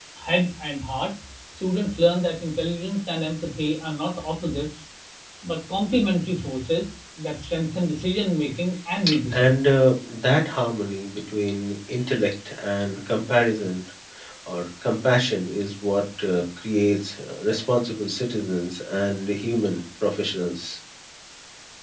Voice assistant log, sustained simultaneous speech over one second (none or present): none